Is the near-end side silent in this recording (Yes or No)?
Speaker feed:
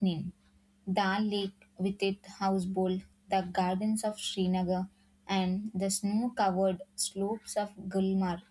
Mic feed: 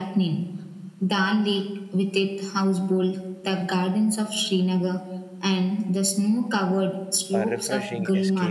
No